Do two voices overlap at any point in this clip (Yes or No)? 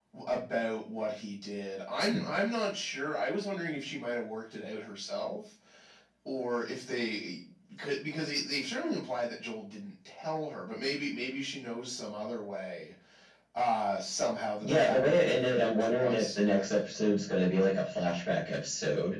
Yes